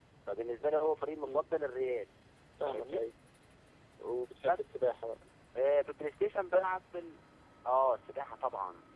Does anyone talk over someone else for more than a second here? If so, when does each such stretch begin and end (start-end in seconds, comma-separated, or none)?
none